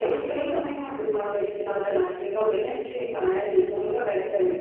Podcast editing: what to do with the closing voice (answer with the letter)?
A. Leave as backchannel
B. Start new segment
A